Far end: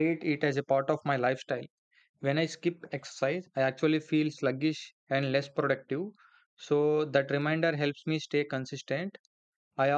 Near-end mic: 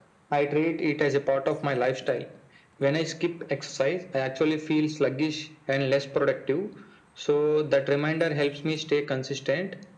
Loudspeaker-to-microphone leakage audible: Yes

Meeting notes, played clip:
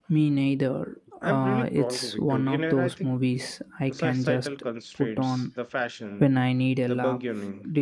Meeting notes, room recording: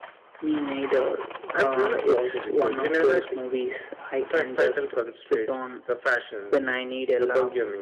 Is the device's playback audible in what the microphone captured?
Yes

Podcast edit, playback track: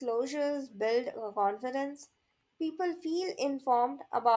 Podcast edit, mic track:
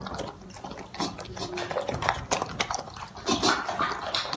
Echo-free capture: Yes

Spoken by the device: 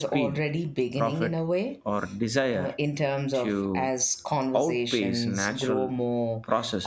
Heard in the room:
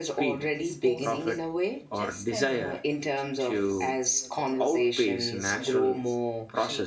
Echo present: Yes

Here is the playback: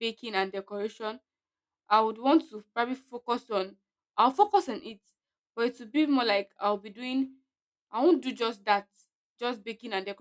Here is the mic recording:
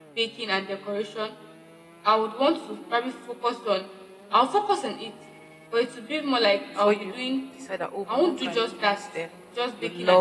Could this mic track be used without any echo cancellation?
No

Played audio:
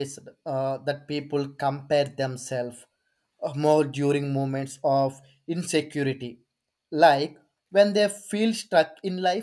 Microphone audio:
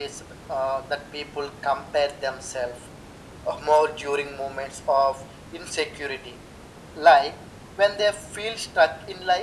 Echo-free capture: No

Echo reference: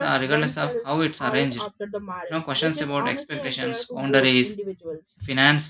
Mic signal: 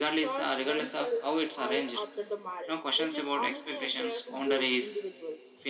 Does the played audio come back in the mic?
Yes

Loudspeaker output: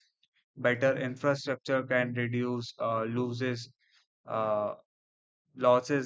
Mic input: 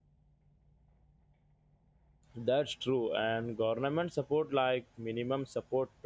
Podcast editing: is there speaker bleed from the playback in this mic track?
No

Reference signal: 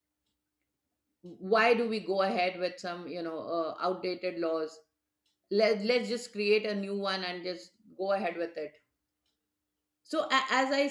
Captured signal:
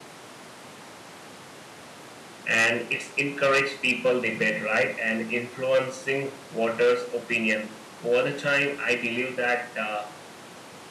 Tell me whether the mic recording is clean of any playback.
Yes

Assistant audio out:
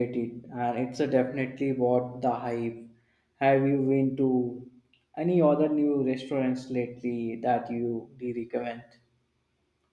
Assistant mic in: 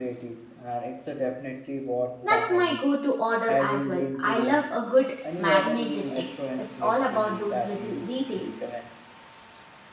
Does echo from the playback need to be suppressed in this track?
Yes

